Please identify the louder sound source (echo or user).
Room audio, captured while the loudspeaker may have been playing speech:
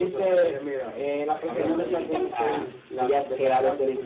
echo